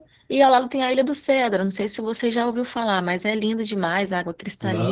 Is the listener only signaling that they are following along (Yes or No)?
No